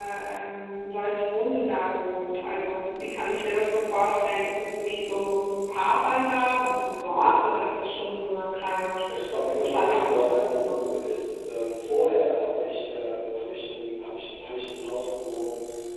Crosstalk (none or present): present